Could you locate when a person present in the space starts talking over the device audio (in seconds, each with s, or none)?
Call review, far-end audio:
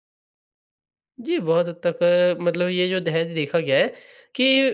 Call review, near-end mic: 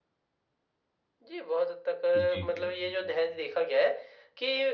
2.1 s